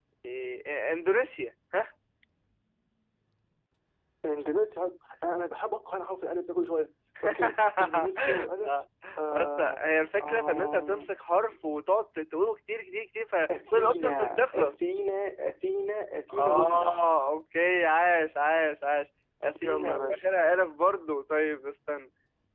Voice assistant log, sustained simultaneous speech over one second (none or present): present